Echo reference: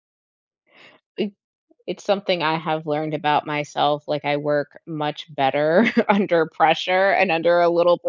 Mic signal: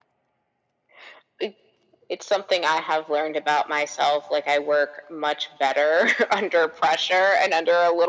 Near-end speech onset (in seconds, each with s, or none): none